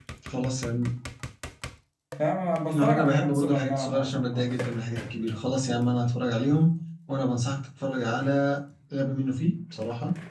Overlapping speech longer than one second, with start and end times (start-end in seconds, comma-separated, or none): 2.6-4.5